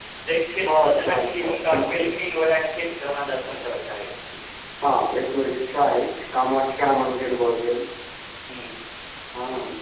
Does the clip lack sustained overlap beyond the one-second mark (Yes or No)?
No